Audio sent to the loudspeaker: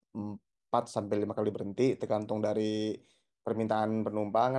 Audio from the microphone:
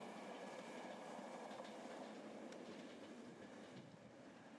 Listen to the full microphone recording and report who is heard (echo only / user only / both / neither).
neither